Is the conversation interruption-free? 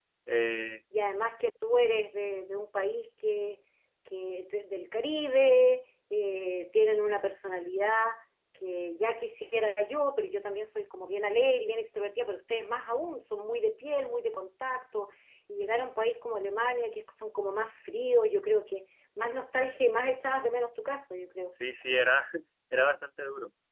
Yes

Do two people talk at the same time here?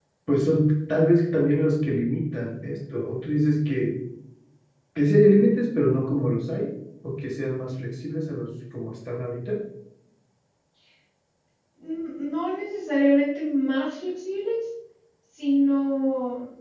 No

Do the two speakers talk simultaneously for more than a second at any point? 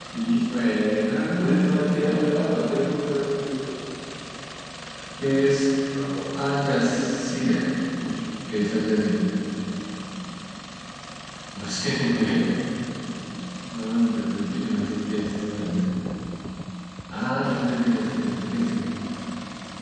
Yes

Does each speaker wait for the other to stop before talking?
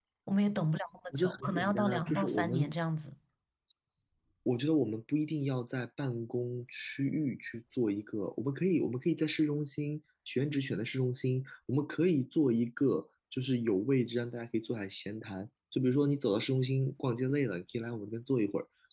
No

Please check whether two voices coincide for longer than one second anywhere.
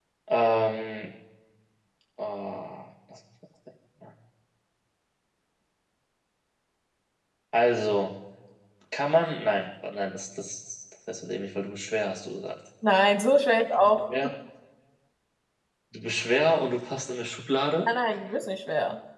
No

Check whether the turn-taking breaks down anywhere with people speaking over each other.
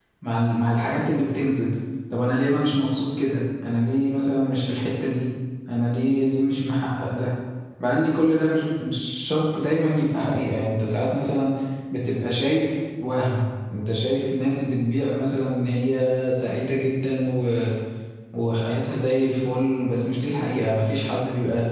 No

